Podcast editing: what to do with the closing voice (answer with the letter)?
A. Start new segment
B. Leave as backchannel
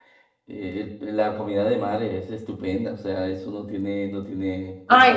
A